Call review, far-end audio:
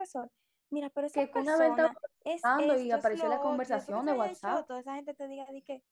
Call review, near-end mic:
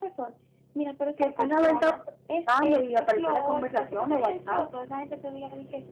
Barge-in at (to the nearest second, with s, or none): none